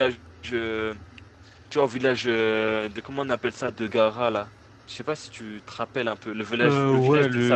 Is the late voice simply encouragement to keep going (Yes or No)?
No